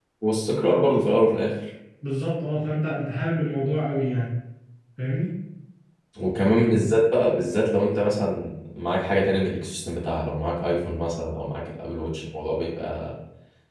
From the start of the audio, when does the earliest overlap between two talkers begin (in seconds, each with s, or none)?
none